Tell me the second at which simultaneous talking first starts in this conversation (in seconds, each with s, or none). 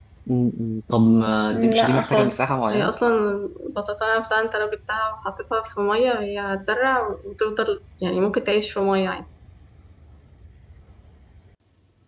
1.5 s